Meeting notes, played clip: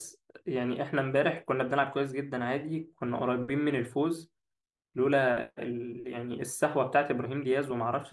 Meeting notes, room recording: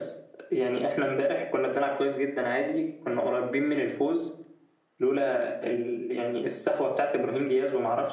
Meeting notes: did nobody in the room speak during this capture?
Yes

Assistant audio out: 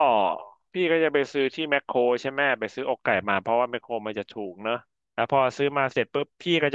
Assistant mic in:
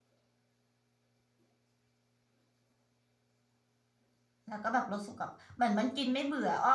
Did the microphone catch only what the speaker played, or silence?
No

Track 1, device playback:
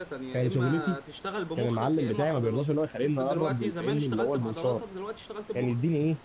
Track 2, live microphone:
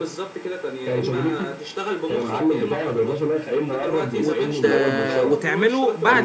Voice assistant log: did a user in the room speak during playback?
Yes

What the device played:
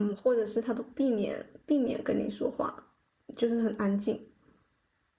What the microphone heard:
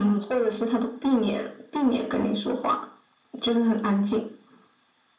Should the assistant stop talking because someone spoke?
No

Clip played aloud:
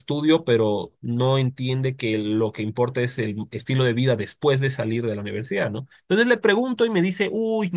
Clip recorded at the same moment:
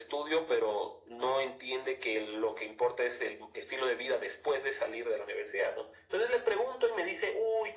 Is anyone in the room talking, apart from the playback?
No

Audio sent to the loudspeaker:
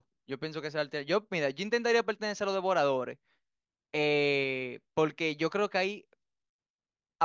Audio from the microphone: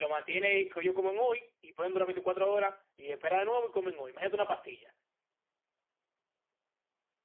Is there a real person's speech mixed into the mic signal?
Yes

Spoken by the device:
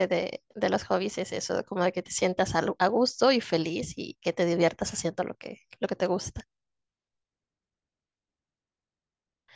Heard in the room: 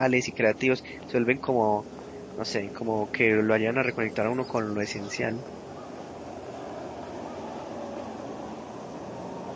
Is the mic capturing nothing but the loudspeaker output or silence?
No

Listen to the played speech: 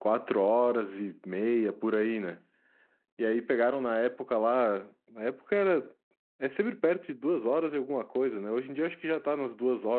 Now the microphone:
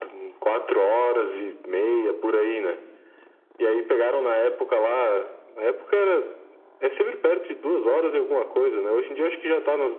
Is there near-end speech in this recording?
No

